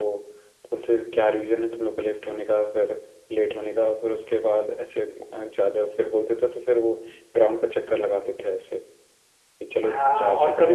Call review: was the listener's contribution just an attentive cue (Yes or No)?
No